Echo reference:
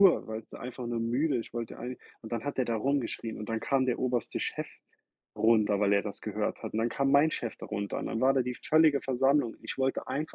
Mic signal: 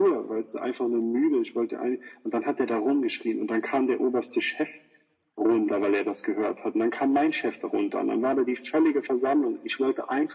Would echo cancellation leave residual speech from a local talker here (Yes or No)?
No